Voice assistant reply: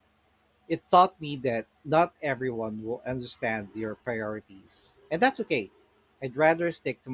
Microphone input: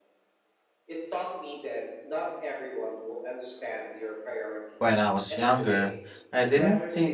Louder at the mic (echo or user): user